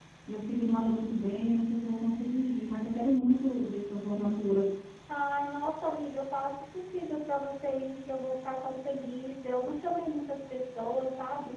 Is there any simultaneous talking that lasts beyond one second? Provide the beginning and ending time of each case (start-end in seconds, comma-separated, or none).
none